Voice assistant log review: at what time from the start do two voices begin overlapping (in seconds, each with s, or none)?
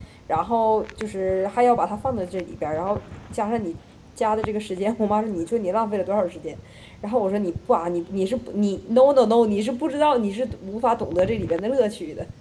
none